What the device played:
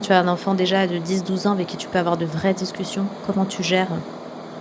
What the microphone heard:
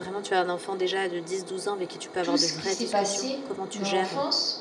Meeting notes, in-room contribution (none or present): present